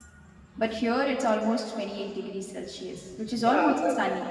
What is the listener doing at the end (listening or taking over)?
taking over